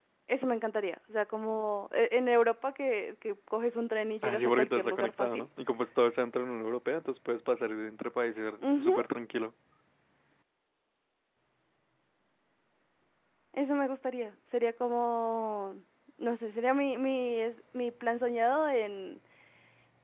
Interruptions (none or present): present